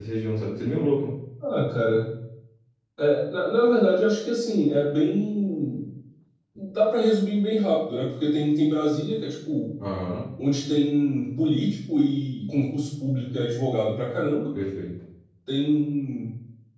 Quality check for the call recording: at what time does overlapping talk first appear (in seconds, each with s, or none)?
none